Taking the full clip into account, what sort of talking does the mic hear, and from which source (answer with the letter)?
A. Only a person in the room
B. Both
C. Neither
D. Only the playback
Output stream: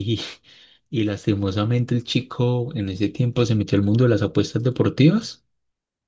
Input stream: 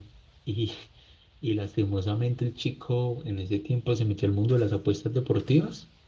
D